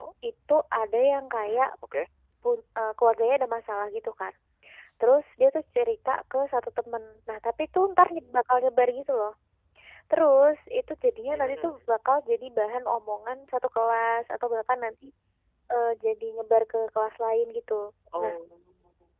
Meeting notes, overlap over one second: none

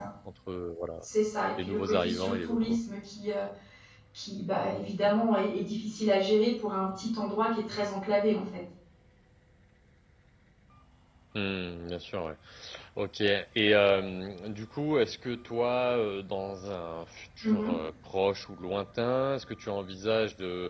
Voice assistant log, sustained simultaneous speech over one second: present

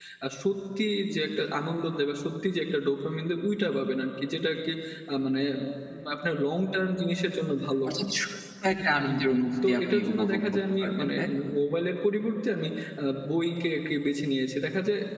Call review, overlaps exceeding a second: present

